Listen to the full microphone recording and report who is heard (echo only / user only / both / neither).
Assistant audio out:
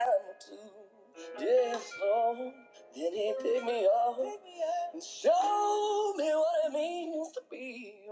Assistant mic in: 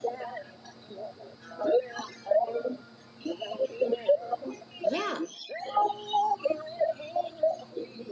both